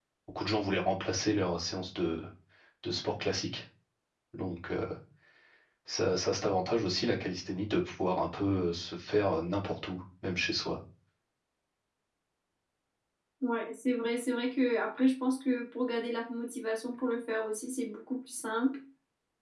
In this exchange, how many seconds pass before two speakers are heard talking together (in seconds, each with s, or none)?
none